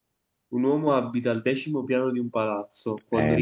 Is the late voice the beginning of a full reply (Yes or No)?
Yes